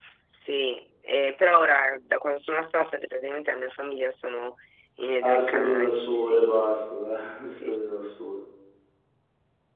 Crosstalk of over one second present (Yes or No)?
Yes